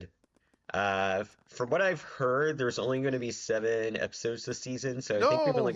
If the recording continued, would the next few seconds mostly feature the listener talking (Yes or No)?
No